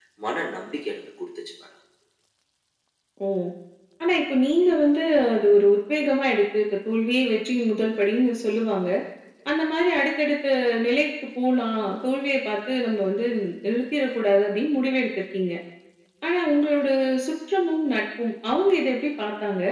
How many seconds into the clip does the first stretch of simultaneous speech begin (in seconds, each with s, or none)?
none